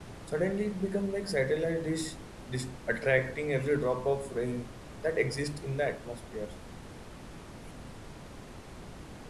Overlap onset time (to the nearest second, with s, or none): none